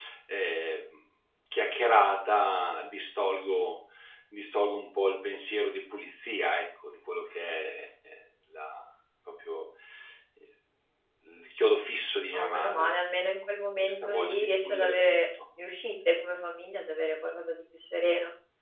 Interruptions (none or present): present